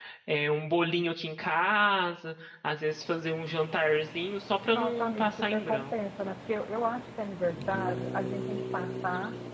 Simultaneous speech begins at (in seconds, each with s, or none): 4.7 s